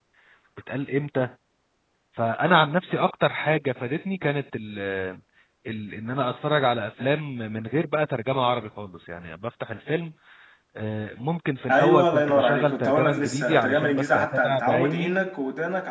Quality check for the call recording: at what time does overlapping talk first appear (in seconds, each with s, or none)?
11.7 s